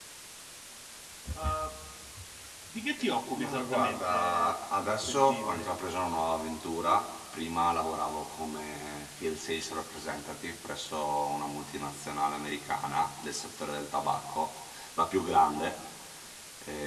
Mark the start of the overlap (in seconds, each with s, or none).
3.3 s